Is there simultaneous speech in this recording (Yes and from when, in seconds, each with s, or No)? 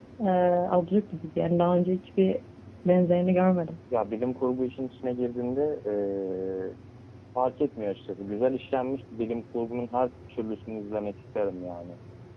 No